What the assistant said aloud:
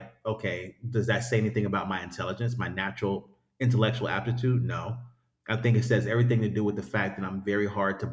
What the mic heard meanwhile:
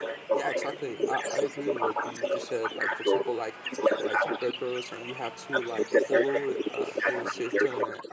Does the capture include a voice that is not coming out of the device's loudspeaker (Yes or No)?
Yes